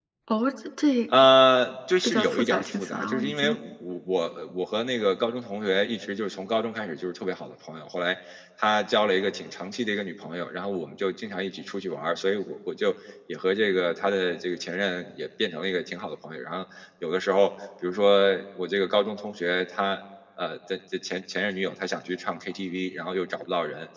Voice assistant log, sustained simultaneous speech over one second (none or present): present